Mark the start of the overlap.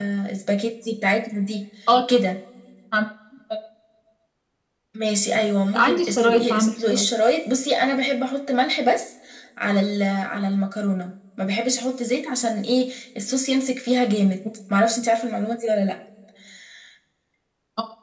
5.7 s

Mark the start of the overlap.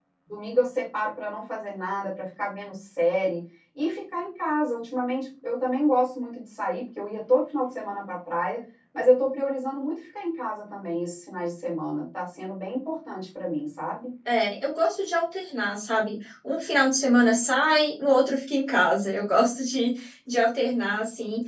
none

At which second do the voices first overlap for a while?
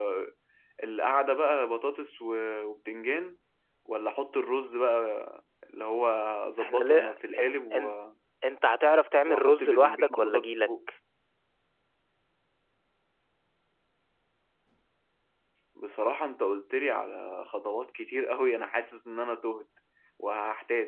6.6 s

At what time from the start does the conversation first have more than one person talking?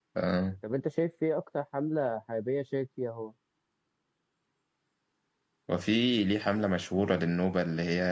none

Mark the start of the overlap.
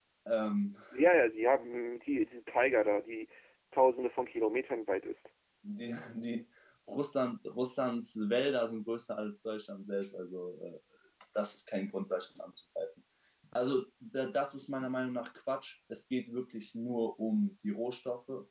none

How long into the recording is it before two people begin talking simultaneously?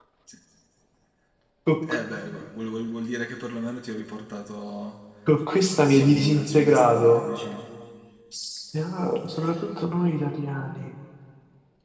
5.9 s

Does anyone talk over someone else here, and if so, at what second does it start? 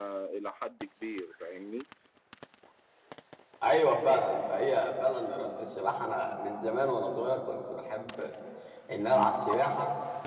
none

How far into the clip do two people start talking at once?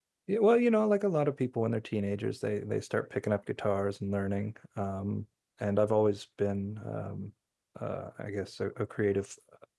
none

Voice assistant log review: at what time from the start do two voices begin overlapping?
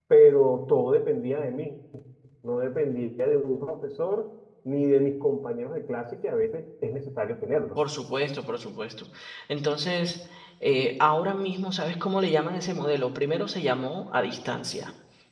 none

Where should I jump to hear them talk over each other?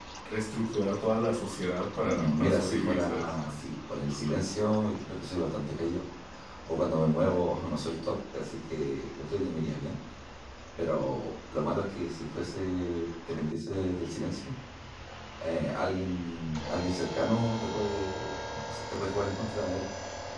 2.0 s

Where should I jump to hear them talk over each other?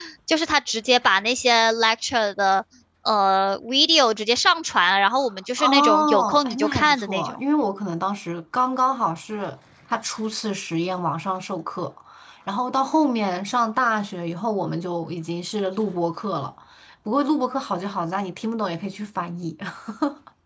5.6 s

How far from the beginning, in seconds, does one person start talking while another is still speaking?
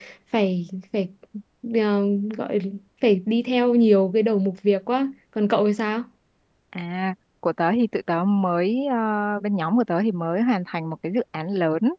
none

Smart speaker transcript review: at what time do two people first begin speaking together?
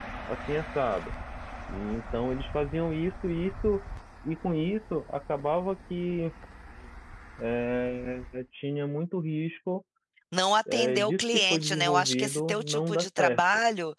10.7 s

